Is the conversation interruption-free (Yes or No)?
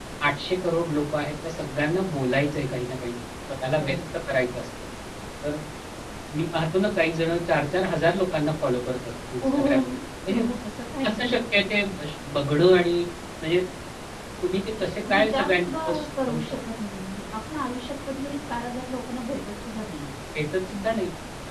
No